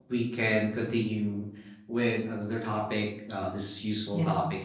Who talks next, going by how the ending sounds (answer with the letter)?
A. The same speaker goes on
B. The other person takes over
A